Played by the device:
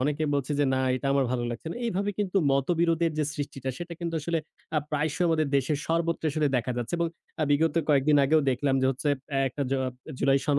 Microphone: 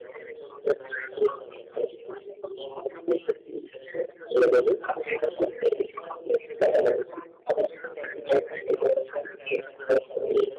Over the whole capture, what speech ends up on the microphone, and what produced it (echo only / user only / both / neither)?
both